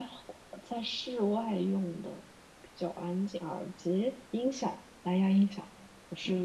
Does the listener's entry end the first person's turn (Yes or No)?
Yes